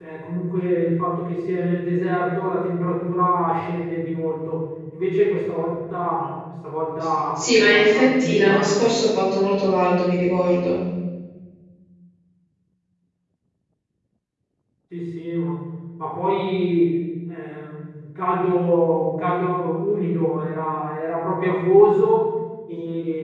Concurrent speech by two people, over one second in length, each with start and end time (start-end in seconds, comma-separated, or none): 7.4-8.9